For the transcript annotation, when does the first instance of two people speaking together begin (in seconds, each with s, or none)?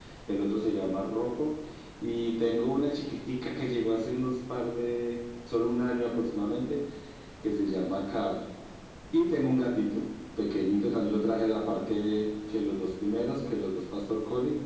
none